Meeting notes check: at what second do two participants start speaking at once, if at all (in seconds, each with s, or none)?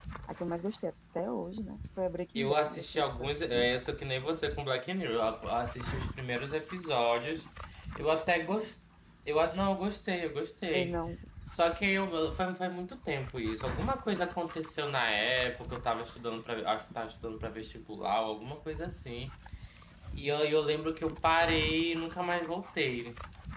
2.4 s